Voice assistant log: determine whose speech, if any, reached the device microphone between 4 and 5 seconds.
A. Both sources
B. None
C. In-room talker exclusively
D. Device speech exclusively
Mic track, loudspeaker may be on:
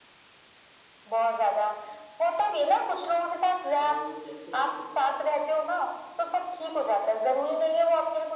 A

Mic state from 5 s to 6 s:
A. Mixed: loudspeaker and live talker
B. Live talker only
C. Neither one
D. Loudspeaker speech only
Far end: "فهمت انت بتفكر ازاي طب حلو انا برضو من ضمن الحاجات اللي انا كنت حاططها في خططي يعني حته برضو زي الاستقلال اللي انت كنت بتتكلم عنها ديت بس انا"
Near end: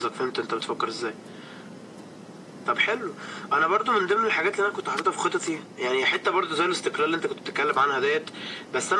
D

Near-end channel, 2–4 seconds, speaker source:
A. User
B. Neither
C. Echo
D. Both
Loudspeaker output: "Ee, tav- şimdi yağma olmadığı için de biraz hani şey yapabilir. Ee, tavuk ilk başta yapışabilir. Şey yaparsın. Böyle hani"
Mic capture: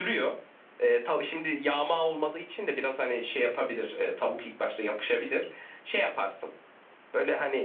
C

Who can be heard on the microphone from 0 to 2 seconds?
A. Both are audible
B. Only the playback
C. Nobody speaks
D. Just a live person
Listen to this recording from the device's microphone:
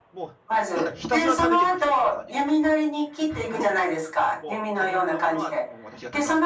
A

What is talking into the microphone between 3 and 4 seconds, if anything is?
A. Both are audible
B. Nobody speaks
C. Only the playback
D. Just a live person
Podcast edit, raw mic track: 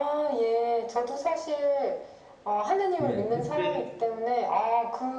A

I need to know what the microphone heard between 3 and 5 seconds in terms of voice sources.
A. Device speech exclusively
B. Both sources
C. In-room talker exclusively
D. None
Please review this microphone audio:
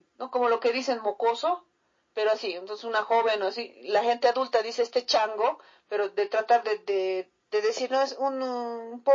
A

